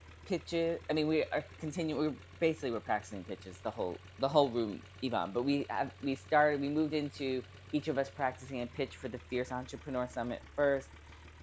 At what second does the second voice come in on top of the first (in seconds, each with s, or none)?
none